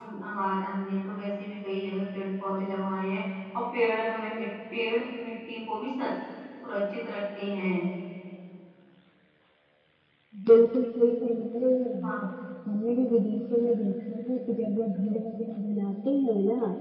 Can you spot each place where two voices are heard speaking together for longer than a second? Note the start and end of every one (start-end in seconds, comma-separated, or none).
none